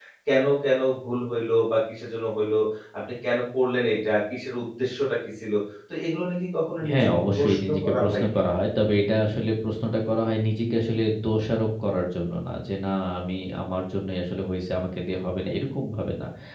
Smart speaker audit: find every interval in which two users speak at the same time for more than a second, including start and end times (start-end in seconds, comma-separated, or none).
6.9-8.5